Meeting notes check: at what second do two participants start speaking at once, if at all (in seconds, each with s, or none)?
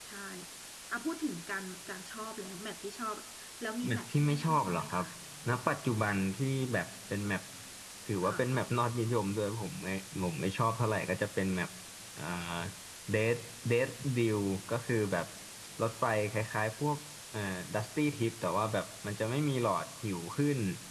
3.8 s